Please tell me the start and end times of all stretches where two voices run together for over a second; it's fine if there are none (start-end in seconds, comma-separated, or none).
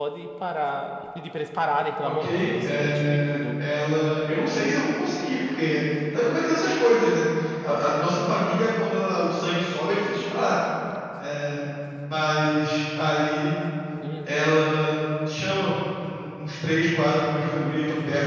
2.0-3.6